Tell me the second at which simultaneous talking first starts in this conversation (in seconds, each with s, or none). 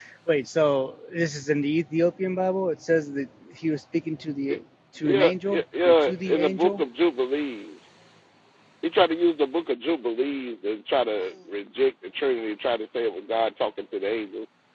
5.0 s